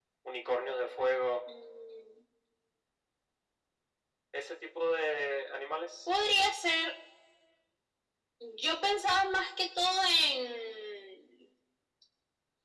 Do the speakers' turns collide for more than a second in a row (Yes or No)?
No